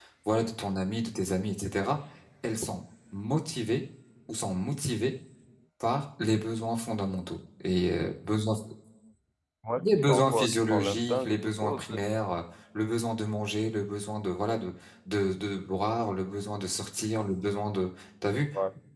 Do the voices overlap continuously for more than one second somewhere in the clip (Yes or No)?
Yes